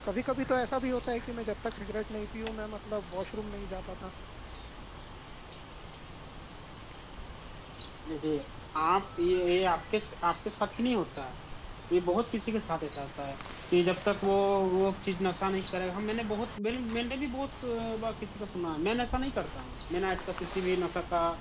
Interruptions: none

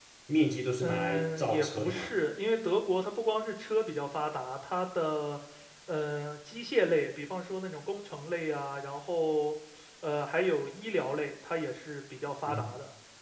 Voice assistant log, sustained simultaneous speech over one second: present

